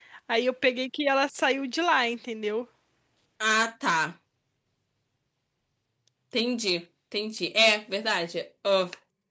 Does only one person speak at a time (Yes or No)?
Yes